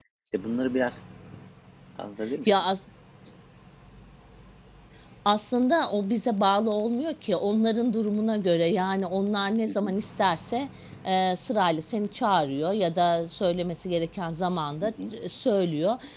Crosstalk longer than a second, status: none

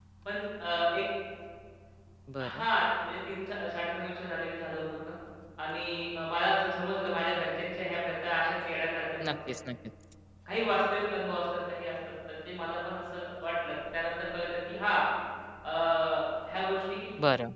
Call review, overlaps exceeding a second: none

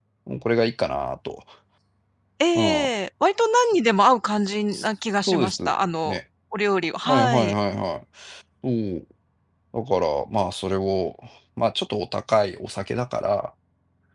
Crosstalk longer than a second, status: none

